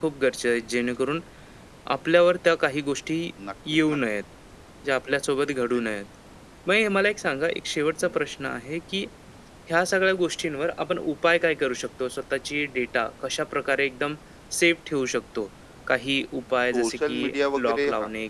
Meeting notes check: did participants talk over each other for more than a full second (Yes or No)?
Yes